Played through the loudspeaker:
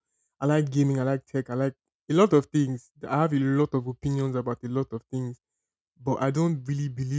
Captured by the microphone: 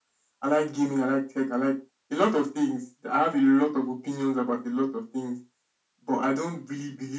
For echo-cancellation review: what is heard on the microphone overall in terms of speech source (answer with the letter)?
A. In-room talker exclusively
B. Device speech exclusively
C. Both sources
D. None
B